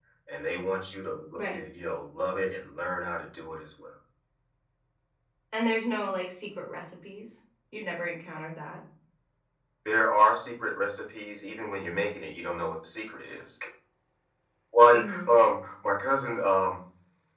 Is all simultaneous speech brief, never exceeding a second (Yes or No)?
Yes